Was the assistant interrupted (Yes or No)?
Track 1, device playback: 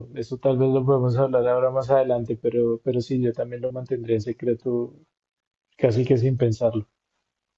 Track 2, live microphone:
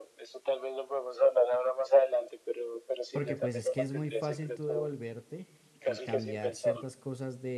Yes